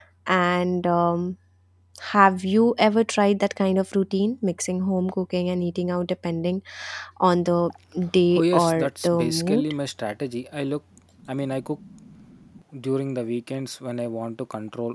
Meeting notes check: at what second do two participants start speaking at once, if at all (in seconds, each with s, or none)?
8.4 s